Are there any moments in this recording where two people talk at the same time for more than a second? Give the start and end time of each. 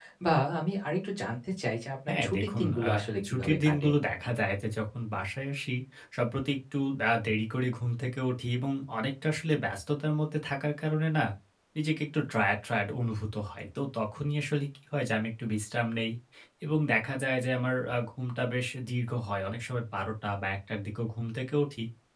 2.1-3.9

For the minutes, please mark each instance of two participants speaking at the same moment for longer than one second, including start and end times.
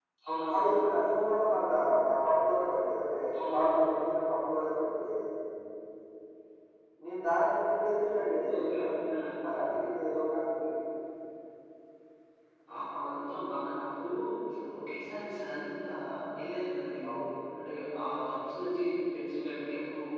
none

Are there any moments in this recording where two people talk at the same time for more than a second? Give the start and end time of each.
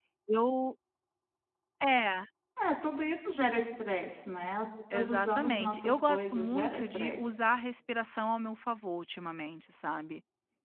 4.9-7.3

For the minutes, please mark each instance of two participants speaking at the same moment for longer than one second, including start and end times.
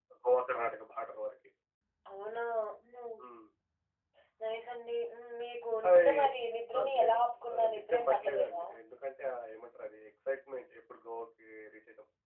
6.8-8.6

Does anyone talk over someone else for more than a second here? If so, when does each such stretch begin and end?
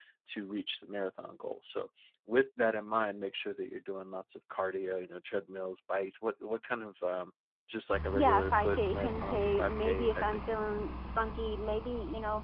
8.1-10.2

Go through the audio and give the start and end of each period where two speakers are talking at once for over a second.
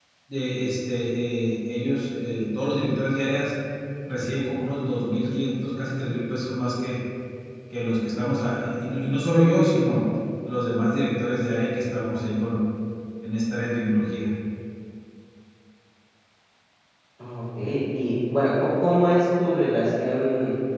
none

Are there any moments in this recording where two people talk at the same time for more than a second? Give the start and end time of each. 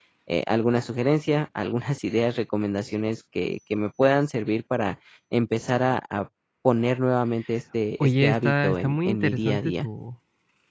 8.0-9.9

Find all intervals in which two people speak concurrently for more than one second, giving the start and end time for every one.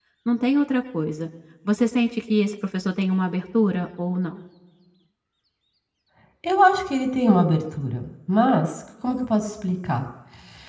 none

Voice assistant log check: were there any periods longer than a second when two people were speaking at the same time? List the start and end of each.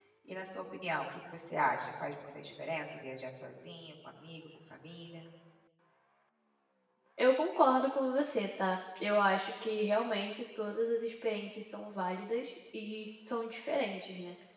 none

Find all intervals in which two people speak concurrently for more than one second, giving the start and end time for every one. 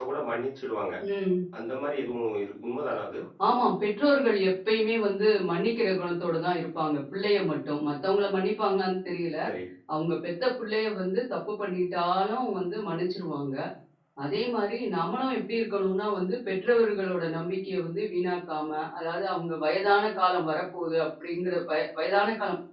none

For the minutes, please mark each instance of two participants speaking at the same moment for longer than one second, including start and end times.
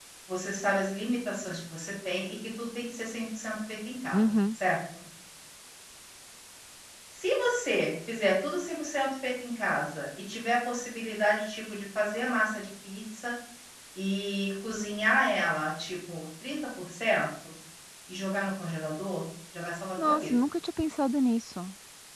none

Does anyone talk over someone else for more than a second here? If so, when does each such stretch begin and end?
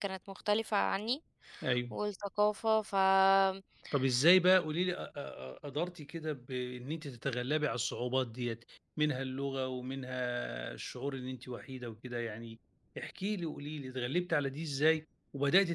none

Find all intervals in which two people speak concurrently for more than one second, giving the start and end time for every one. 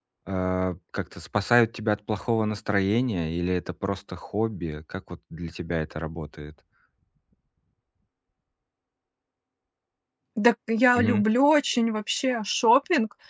none

